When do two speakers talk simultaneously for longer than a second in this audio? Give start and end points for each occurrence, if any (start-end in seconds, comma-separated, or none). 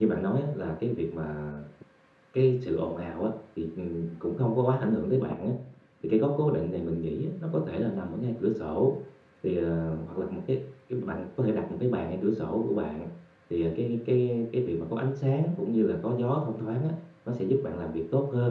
none